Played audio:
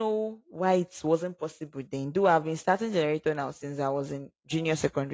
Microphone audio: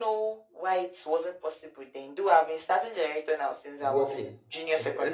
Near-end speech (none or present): present